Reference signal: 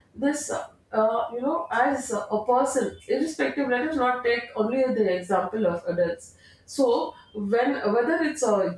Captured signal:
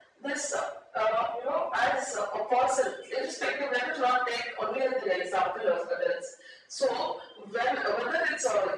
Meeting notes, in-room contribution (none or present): none